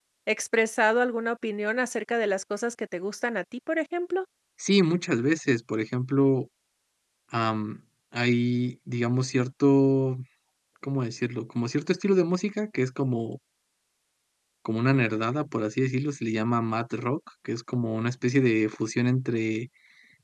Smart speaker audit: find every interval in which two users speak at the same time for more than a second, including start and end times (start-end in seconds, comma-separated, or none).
none